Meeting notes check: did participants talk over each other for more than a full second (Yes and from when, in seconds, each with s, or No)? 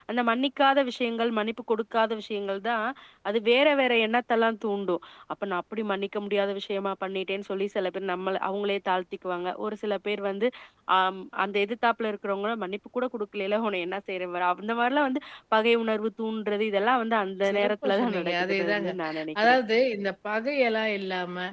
Yes, from 17.4 s